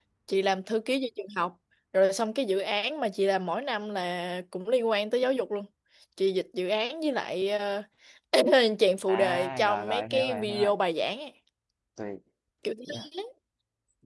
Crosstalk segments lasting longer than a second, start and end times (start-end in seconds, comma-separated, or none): 9.1-10.7